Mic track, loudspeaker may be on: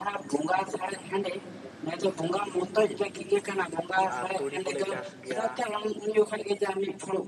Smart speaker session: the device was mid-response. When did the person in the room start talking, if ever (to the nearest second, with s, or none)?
4 s